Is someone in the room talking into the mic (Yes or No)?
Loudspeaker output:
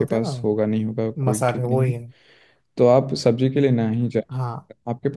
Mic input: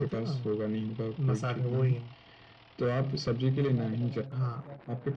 Yes